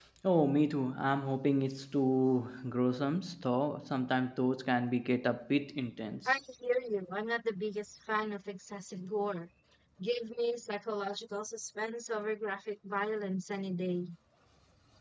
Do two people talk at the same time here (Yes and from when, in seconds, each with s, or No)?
No